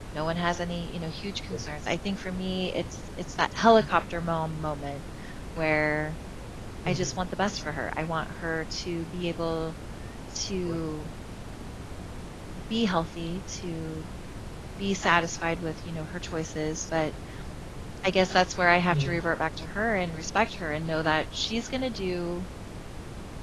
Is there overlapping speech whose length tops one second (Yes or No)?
No